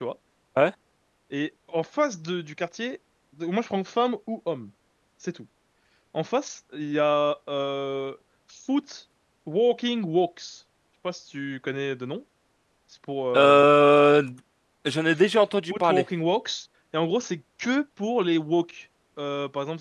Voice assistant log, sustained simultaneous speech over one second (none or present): none